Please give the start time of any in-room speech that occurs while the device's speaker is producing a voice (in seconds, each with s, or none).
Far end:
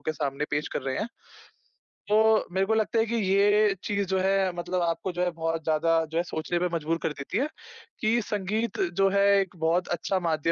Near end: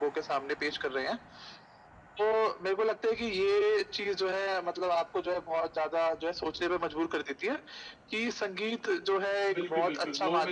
9.5 s